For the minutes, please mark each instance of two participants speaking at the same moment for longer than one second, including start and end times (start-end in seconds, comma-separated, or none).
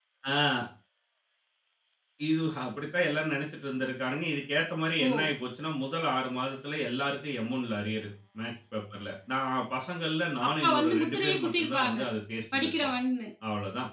10.4-12.0